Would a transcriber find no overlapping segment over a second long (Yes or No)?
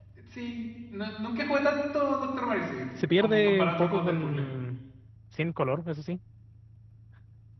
No